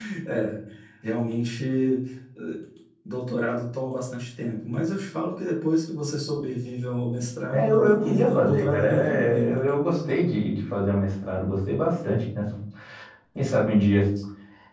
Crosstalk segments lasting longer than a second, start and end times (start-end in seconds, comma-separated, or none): 7.5-9.5